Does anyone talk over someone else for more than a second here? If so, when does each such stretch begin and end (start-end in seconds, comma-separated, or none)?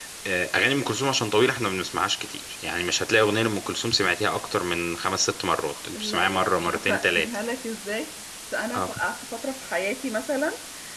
5.9-7.3